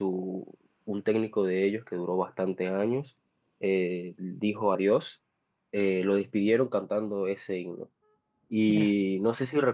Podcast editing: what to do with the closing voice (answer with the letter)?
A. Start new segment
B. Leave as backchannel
B